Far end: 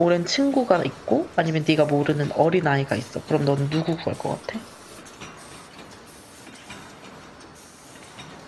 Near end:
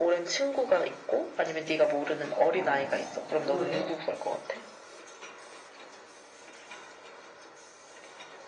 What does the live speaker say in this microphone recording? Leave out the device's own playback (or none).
어 왜?